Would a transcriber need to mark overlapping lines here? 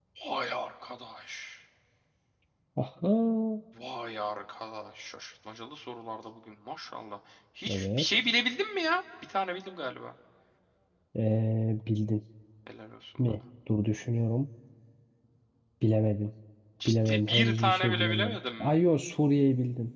Yes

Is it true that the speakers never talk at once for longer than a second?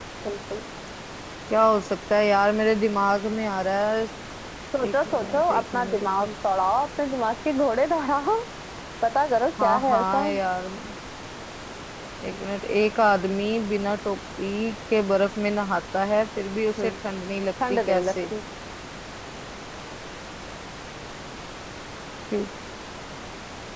No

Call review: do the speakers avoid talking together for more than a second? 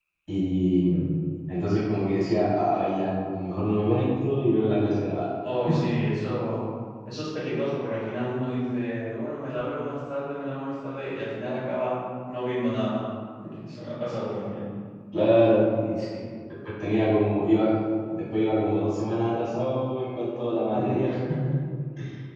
Yes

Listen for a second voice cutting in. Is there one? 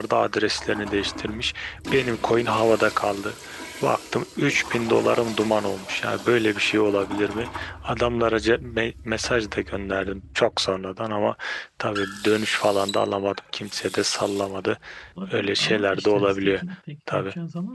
Yes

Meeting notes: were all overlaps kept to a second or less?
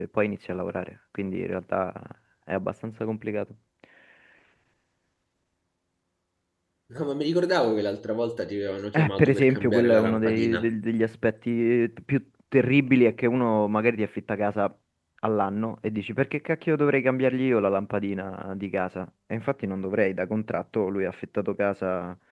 No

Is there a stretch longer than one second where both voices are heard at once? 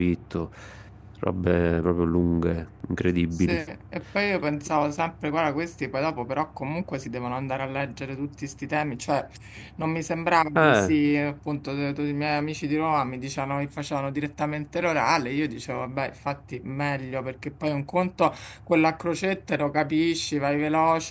No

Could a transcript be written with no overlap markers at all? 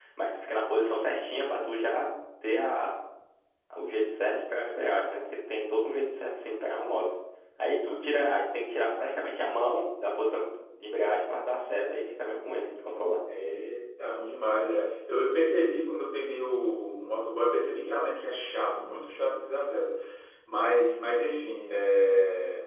Yes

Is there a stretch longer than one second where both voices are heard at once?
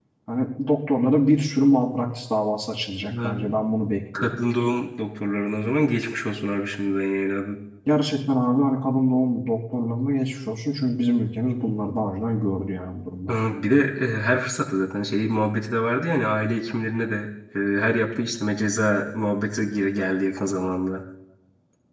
No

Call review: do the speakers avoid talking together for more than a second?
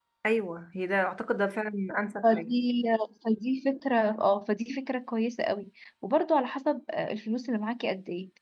Yes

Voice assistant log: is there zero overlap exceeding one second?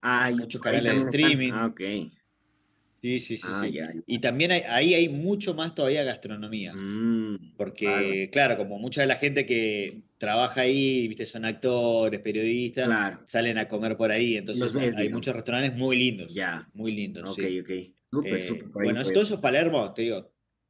No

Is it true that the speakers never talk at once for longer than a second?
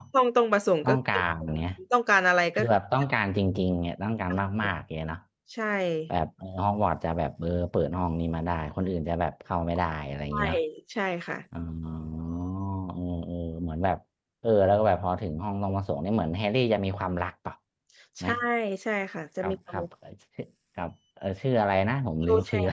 Yes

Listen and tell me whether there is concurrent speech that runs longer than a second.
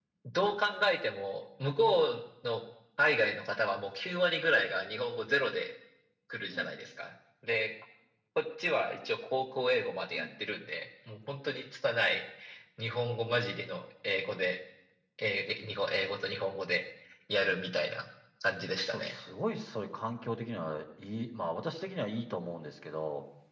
No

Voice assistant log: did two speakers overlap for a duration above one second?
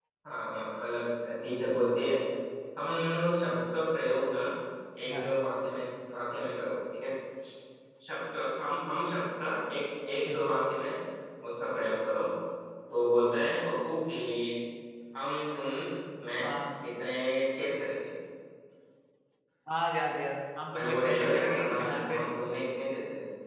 Yes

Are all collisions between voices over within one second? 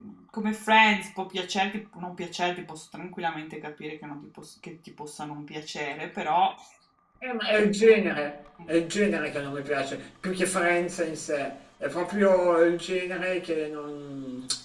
Yes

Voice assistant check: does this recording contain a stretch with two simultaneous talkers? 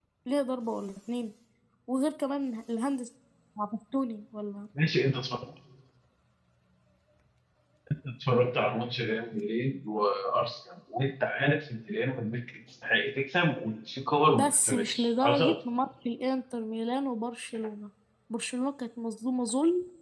Yes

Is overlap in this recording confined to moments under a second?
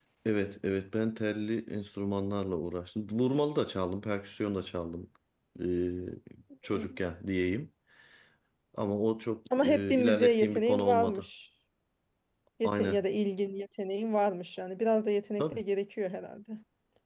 No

